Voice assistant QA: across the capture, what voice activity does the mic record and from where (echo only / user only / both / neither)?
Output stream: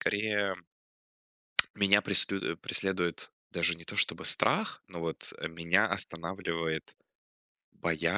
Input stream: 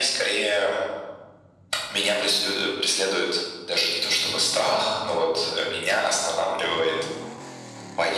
echo only